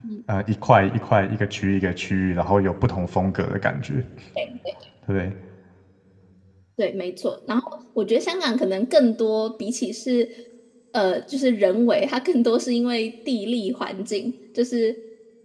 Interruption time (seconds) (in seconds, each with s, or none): none